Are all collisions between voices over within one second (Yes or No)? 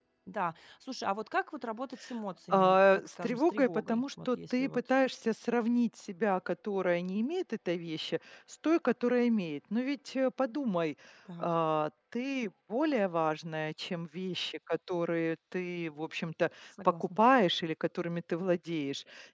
No